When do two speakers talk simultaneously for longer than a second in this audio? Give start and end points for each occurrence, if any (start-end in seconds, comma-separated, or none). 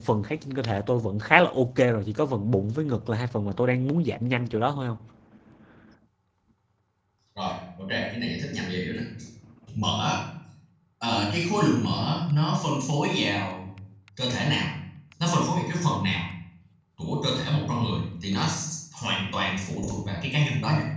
none